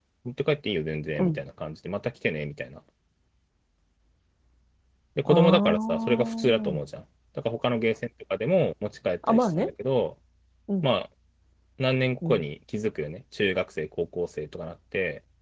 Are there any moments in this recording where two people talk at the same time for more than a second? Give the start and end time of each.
5.3-6.8

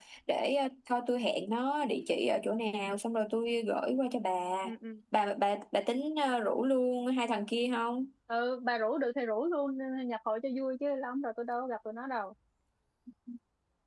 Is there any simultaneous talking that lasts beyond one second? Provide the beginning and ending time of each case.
none

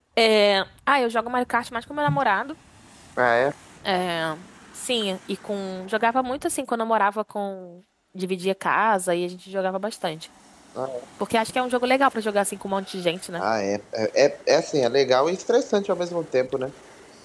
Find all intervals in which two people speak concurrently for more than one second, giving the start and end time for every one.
none

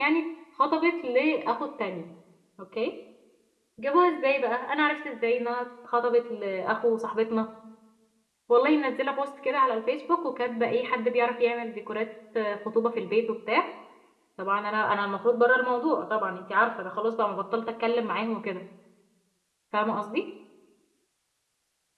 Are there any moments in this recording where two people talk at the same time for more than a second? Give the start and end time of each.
none

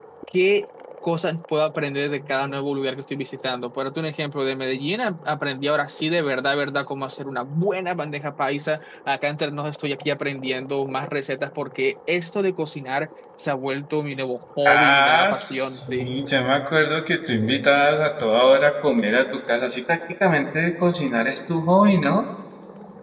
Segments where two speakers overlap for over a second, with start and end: 14.7-16.2

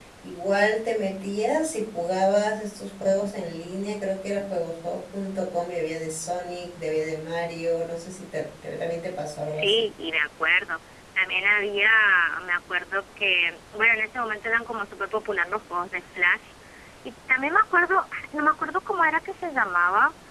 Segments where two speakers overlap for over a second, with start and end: none

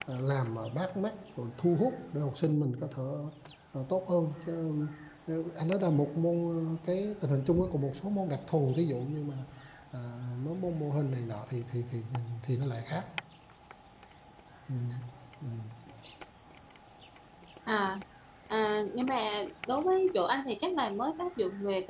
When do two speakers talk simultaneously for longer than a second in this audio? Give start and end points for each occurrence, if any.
none

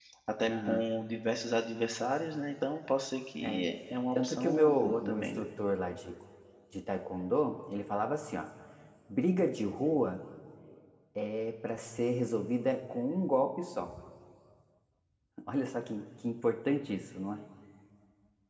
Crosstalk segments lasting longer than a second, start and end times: 4.2-5.5

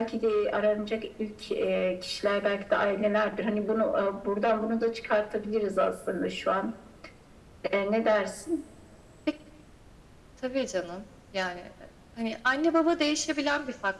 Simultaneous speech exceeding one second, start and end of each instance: none

